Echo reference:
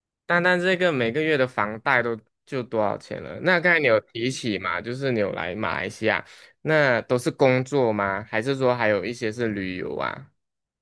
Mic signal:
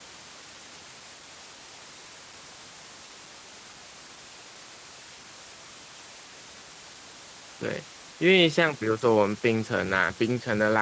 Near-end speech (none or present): present